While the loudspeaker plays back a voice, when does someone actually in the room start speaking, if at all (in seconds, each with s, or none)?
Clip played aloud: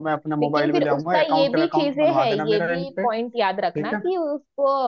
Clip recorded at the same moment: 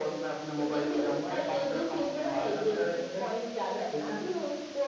none